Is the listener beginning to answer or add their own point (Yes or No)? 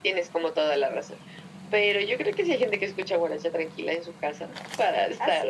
Yes